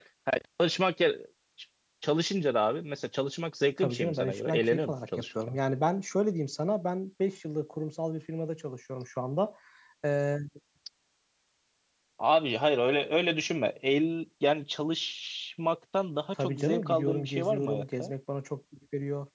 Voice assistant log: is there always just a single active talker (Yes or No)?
No